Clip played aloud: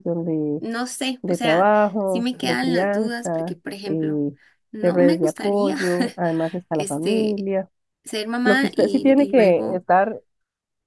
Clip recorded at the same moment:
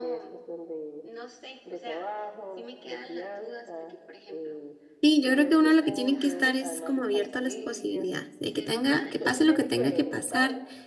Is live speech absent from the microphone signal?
No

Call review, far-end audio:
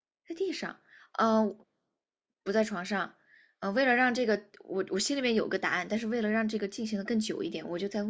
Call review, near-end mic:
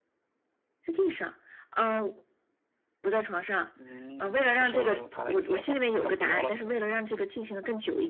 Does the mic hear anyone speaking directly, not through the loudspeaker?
Yes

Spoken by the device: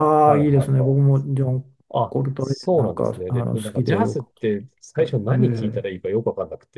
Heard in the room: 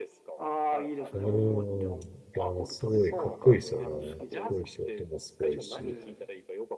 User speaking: Yes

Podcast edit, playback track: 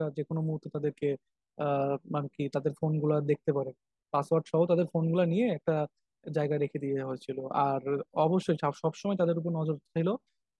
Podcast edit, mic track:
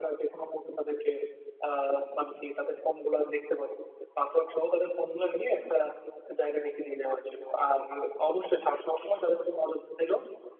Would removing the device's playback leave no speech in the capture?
Yes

